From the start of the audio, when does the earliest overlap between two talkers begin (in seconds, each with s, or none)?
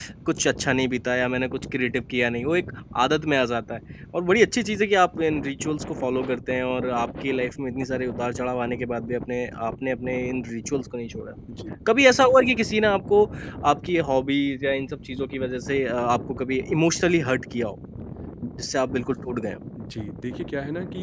none